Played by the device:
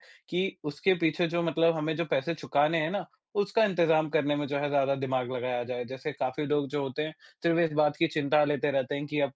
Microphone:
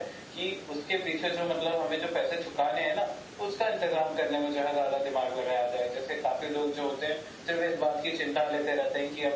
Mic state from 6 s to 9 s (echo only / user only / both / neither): echo only